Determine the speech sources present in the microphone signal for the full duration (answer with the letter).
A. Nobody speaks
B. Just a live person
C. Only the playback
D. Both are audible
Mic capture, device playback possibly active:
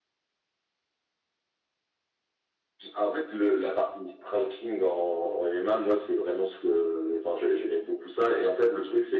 C